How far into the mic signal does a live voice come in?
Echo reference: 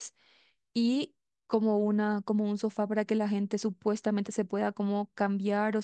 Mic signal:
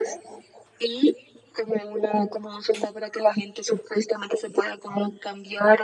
none

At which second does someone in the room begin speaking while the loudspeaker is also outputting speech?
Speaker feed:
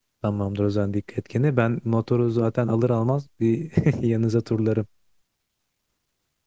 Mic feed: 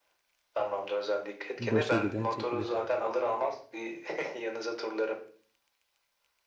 1.6 s

